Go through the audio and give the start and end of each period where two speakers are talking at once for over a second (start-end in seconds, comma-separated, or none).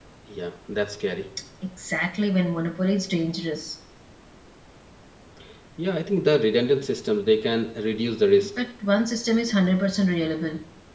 none